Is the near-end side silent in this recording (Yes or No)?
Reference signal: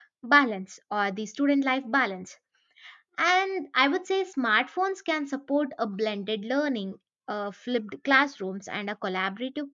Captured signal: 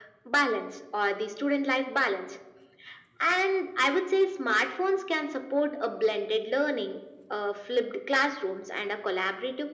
Yes